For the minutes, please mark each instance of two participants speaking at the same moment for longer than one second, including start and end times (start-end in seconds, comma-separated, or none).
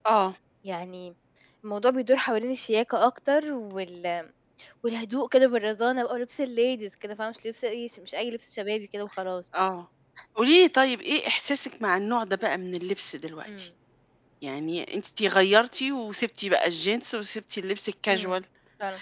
none